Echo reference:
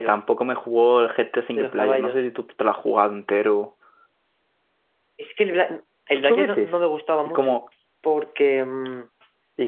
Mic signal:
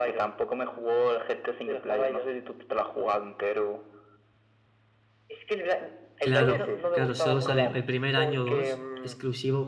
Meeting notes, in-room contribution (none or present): present